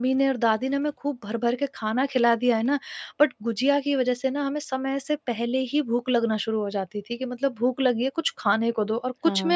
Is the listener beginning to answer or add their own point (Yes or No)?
Yes